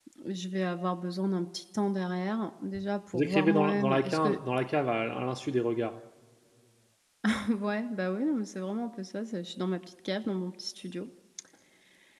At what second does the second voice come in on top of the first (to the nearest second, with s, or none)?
3 s